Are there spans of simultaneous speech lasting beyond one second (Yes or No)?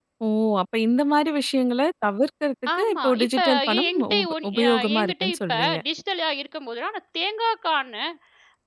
Yes